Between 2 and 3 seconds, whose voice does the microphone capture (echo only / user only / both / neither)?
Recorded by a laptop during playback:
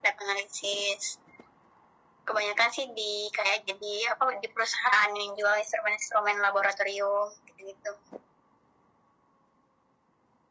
echo only